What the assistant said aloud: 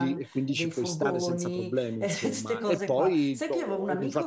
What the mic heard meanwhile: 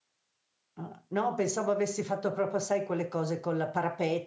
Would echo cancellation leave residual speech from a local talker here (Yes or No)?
Yes